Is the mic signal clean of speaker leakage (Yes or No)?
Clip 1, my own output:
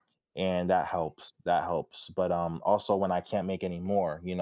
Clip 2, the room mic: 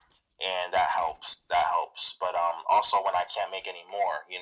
No